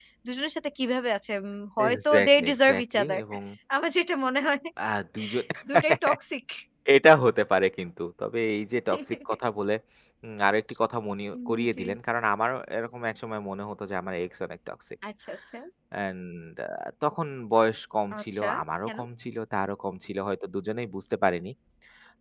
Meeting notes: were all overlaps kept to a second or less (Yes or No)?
No